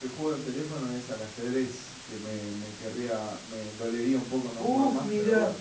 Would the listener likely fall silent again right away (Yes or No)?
No